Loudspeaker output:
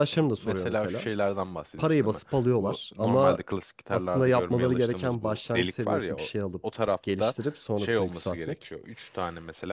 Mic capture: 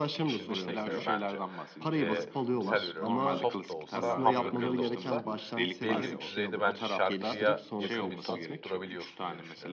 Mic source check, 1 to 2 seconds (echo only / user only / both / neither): both